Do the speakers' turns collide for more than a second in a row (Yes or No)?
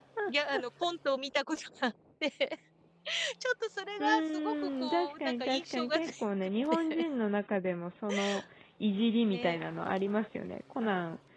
Yes